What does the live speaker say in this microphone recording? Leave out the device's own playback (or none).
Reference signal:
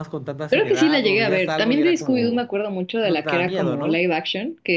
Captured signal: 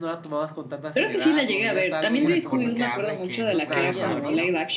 un unicornio que habla y que puede ver Barbie, ¿no?